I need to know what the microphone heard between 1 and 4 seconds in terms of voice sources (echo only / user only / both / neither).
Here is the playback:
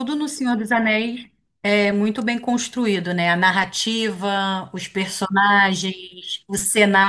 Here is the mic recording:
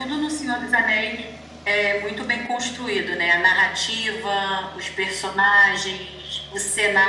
echo only